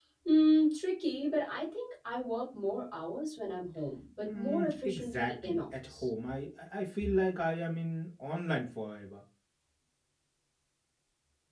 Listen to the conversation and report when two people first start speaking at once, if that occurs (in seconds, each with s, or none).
4.2 s